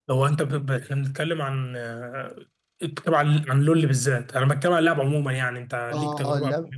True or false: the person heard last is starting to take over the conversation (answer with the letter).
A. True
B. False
A